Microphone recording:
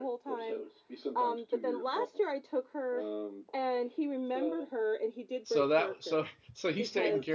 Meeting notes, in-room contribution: present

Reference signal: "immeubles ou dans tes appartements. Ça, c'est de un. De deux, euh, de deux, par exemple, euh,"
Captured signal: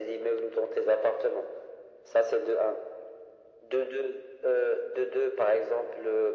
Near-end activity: none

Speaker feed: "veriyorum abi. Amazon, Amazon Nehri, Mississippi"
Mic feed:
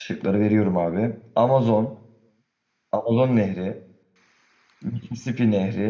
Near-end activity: none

